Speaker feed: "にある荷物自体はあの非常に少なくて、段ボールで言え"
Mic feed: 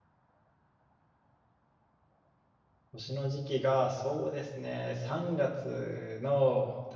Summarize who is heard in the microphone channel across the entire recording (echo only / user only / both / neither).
user only